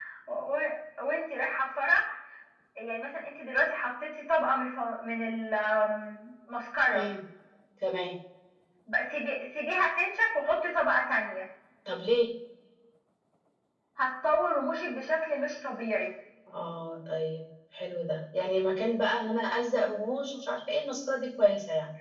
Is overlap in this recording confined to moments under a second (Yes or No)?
Yes